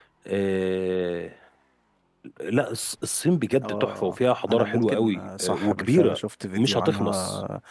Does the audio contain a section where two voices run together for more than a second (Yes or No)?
Yes